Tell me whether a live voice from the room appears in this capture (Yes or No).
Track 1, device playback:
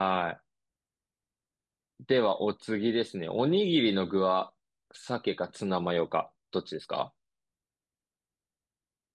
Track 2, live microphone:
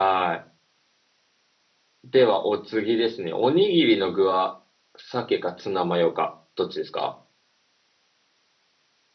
No